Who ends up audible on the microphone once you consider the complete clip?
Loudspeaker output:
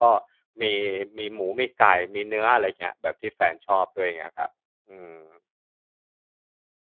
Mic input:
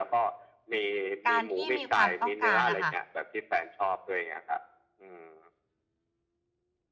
both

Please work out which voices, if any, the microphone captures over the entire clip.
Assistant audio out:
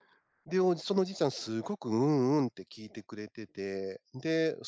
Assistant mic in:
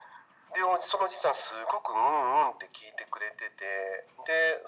echo only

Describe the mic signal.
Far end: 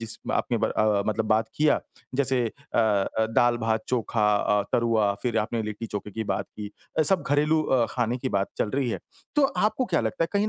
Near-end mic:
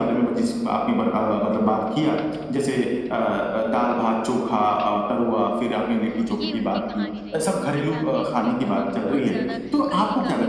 both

